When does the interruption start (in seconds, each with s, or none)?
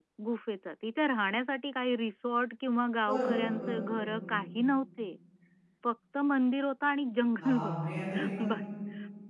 3.1 s